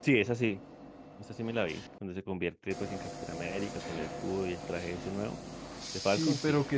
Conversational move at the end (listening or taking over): taking over